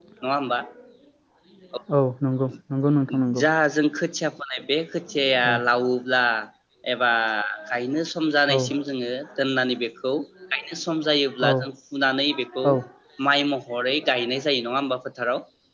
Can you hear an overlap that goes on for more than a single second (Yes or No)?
No